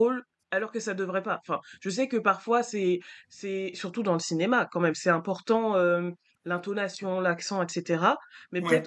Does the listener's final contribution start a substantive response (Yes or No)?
No